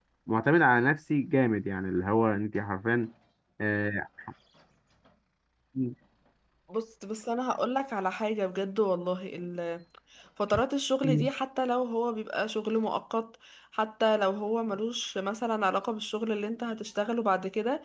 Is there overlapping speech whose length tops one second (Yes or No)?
No